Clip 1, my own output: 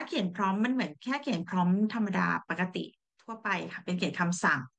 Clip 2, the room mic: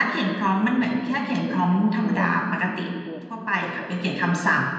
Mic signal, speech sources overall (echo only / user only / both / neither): both